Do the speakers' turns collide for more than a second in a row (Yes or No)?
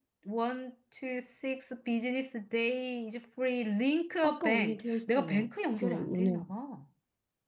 Yes